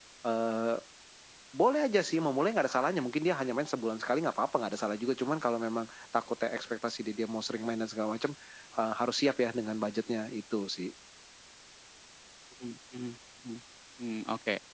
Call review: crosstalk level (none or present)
none